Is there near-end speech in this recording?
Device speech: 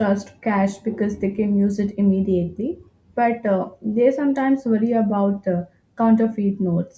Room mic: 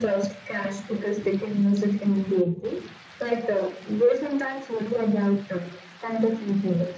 No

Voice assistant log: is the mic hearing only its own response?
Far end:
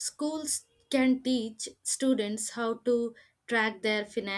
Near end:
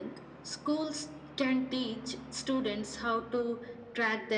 Yes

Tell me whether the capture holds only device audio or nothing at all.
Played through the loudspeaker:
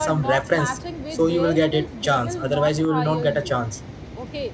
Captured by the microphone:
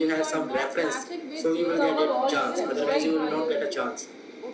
No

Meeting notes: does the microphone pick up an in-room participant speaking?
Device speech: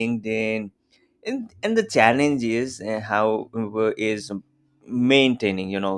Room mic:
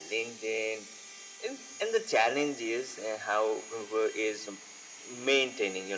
No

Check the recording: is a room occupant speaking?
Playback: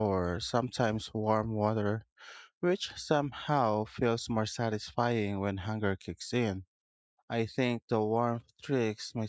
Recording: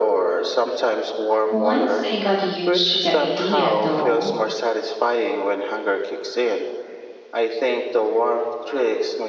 Yes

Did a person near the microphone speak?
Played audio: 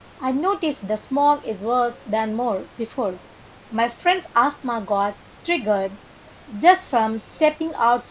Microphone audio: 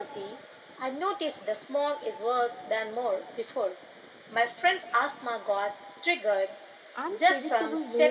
Yes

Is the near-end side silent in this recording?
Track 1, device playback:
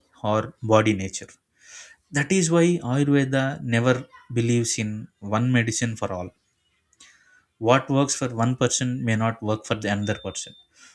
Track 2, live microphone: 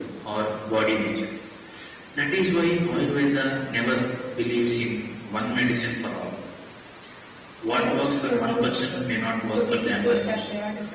No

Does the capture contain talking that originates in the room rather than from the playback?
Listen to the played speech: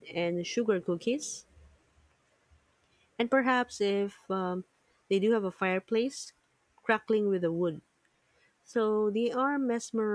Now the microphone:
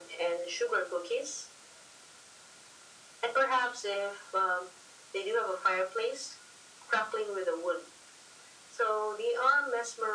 No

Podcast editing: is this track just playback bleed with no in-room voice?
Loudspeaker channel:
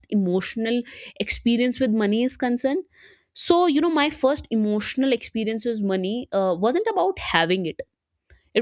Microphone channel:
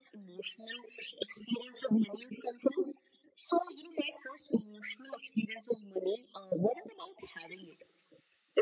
Yes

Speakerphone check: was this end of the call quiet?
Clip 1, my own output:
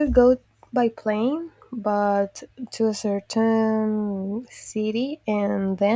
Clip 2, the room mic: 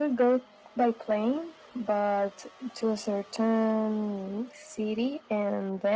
Yes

